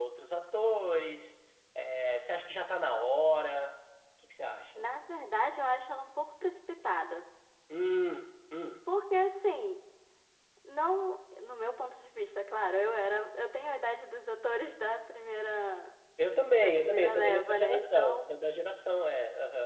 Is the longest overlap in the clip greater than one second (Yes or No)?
Yes